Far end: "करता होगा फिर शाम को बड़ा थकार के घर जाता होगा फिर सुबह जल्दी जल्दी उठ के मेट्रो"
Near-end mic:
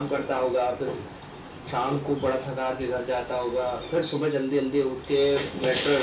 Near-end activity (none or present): none